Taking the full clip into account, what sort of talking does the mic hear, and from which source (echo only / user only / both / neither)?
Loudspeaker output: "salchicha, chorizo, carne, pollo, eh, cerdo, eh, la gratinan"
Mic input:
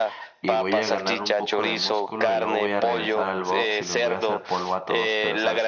both